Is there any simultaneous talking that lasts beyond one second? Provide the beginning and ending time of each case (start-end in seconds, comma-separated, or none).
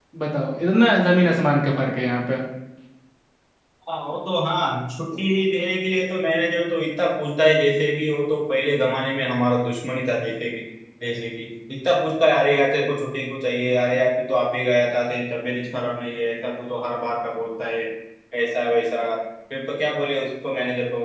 none